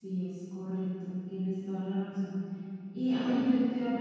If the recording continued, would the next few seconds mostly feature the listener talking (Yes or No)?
No